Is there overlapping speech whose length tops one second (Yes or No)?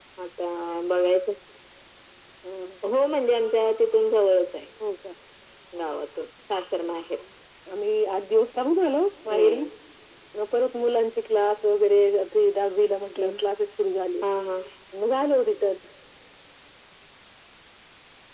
No